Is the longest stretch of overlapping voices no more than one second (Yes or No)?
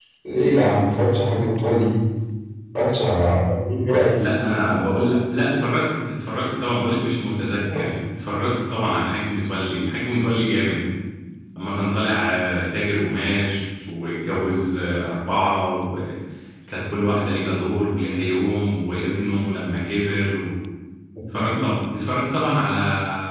Yes